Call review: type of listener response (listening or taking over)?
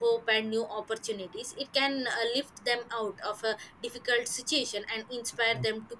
listening